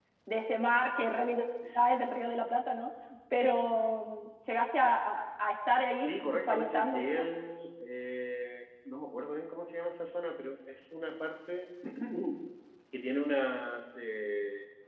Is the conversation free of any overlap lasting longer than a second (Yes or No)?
No